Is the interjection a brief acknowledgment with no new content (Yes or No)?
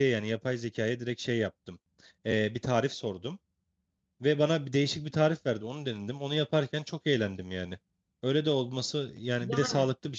No